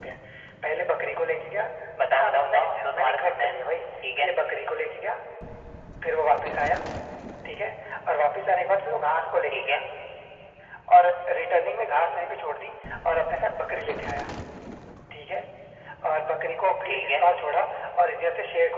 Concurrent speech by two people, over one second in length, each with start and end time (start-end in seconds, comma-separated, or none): 2.2-3.5